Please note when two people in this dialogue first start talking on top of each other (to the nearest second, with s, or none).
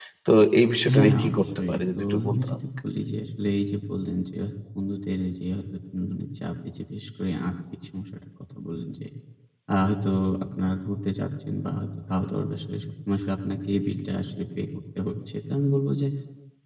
1 s